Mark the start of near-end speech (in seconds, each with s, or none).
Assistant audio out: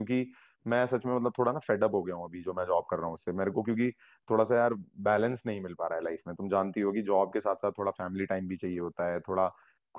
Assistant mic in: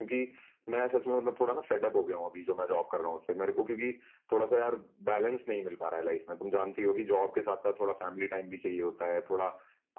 none